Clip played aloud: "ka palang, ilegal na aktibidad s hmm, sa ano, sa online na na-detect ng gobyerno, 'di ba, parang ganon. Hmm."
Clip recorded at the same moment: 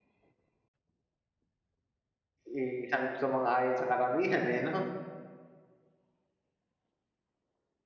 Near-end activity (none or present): present